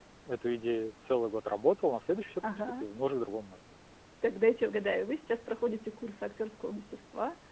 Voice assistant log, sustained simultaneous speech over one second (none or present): none